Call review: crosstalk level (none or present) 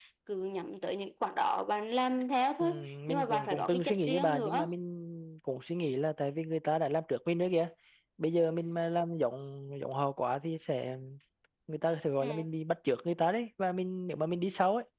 present